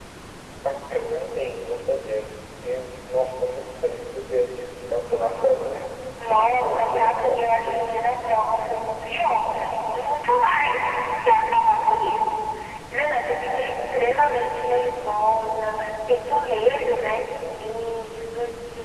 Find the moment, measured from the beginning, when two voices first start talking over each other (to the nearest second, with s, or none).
6 s